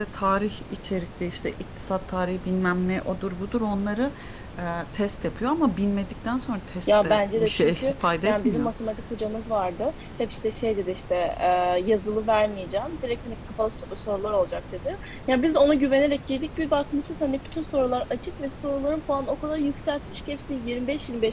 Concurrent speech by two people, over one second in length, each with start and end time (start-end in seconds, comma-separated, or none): 6.9-8.7